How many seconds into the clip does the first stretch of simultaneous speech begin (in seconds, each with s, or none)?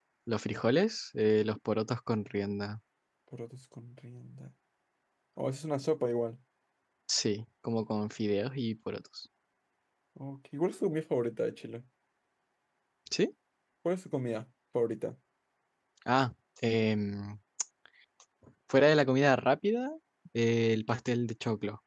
none